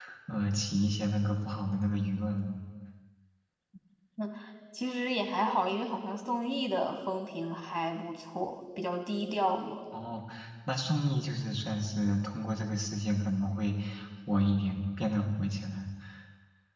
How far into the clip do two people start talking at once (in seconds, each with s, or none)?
none